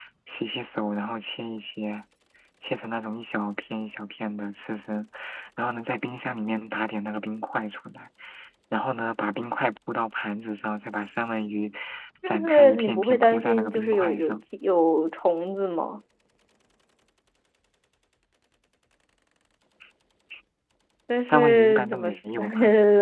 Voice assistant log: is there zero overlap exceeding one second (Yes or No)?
No